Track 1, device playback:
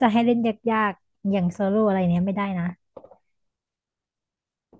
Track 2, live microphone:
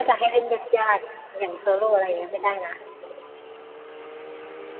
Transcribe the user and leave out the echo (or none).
none